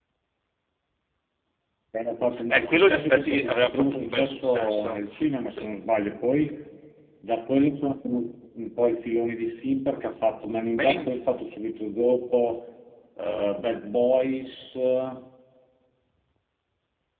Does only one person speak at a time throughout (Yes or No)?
No